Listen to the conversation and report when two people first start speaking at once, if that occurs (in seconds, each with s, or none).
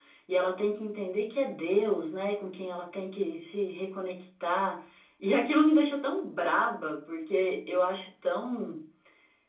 none